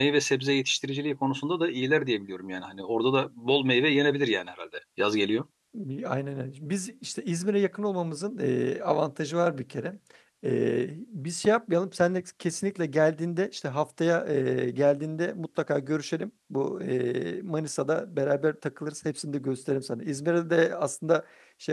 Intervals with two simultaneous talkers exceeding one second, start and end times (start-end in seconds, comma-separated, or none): none